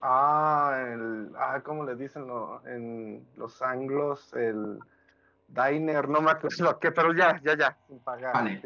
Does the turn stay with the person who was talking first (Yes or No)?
No